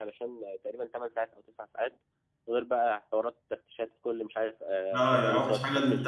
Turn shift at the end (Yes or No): Yes